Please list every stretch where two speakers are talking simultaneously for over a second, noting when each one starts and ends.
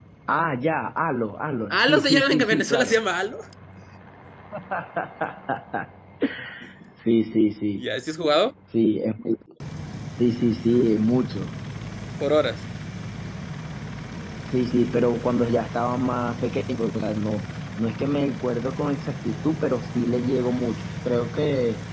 1.7-3.0

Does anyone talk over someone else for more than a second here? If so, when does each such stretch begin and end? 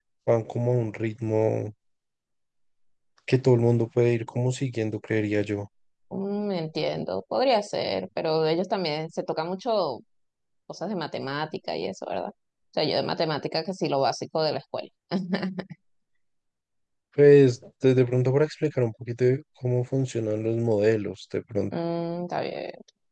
none

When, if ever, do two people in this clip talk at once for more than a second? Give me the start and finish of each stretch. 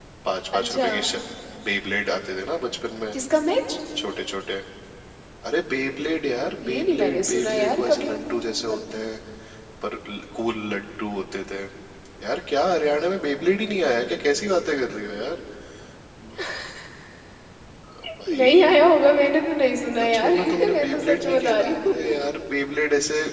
6.7-8.1, 20.0-22.1

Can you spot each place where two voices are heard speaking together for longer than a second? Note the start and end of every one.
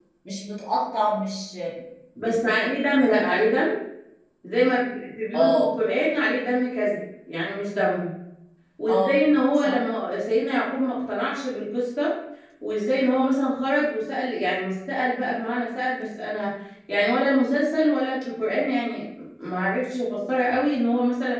2.3-3.6

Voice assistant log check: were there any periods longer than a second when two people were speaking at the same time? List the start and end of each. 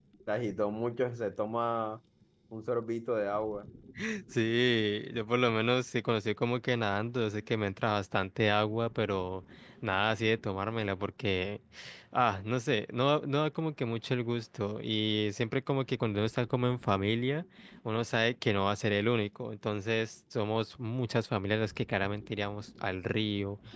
none

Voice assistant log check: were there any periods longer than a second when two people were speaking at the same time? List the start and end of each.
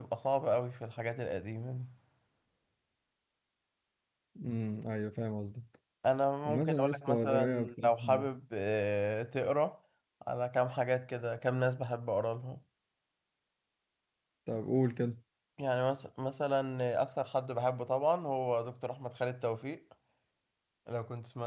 6.4-8.3

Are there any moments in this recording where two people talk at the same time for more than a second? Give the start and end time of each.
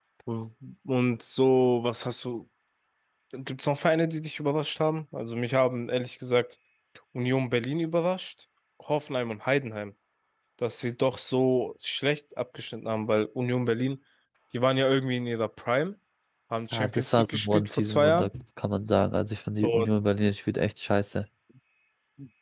16.7-18.3

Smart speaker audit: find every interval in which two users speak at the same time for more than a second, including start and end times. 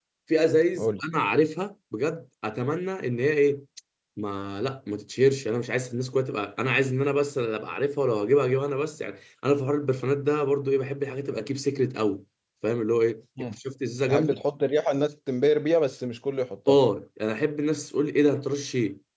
none

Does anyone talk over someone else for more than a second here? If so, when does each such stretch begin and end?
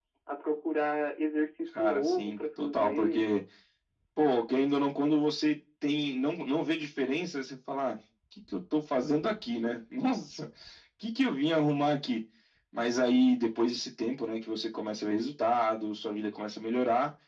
1.8-3.3

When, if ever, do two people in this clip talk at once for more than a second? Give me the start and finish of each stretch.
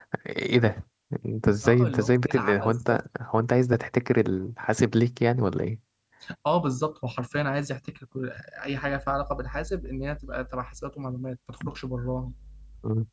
1.6-3.0

